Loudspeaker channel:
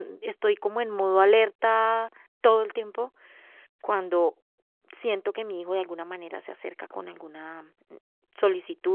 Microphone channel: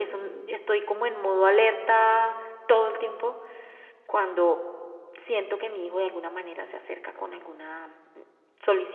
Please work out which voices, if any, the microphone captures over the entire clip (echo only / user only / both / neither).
echo only